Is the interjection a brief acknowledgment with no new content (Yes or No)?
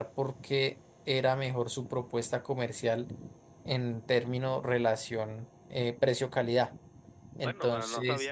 No